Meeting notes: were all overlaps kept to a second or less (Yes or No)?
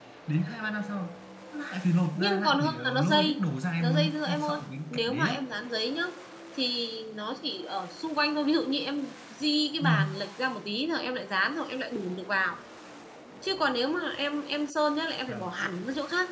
No